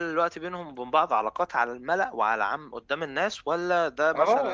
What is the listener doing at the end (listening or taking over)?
taking over